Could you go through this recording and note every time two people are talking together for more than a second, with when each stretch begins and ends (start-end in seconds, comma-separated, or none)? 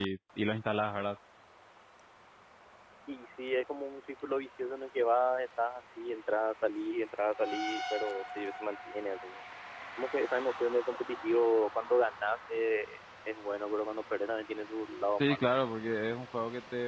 none